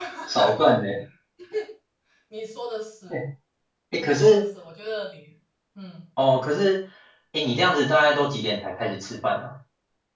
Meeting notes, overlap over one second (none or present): none